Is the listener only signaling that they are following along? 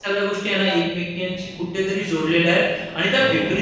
Yes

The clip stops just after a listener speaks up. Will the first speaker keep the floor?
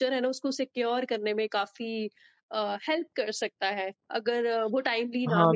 No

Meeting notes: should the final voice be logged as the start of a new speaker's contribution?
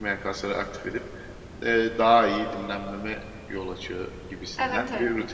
Yes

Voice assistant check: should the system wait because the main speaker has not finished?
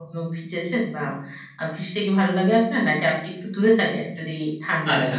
No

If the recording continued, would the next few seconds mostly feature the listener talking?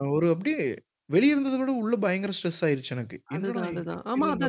Yes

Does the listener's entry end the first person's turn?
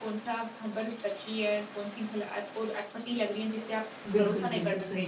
Yes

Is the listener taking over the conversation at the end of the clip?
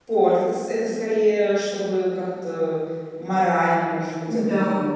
Yes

